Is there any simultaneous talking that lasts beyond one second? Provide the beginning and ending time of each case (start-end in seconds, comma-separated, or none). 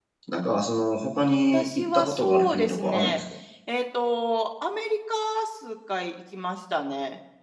1.5-3.2